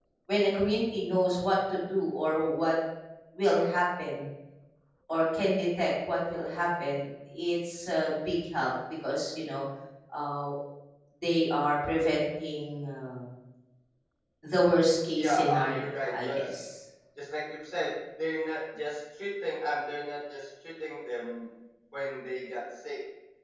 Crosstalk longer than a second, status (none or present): present